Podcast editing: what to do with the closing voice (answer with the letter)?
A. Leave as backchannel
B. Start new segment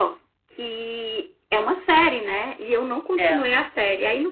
A